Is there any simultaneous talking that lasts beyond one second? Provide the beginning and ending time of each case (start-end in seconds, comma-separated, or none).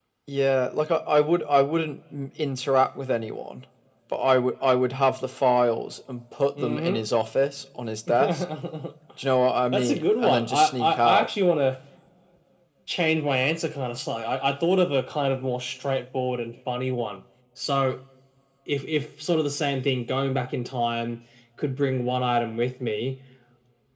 9.7-11.3